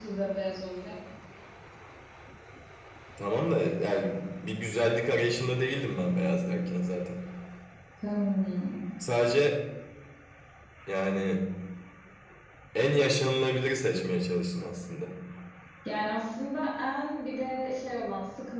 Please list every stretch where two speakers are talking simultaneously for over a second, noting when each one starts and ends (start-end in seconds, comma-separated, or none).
none